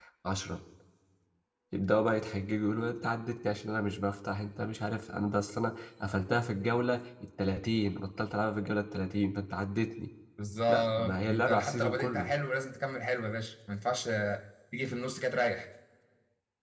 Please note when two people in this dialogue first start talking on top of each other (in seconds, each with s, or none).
10.7 s